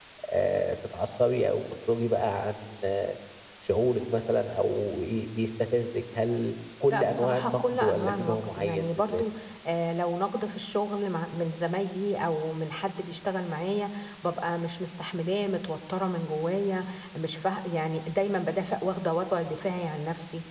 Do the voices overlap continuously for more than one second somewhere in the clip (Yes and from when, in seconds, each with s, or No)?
Yes, from 6.9 s